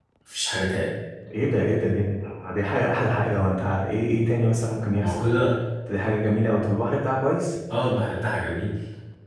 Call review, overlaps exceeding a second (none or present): none